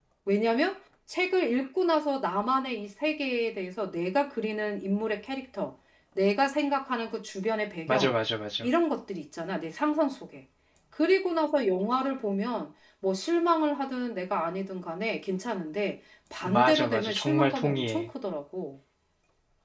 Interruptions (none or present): present